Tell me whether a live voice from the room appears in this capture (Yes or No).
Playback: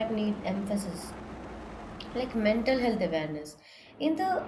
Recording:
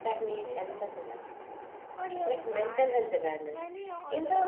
Yes